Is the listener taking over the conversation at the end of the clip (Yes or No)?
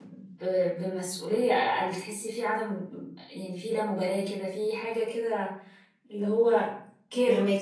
Yes